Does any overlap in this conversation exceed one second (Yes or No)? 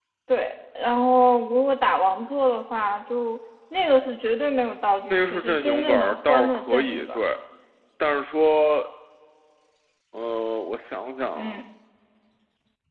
Yes